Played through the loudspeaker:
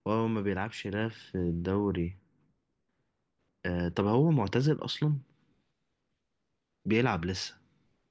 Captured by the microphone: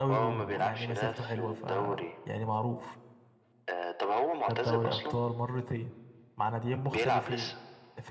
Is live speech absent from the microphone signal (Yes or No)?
No